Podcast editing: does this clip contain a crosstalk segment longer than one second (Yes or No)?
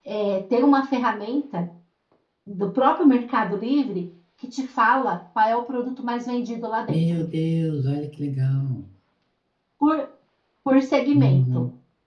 No